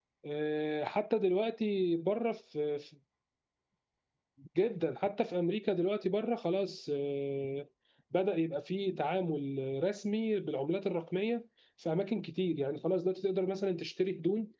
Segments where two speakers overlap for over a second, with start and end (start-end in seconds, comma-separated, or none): none